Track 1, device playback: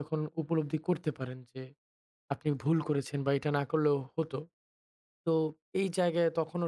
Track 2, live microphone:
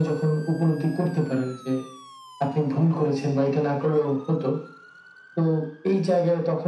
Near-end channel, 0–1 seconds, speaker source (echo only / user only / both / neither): echo only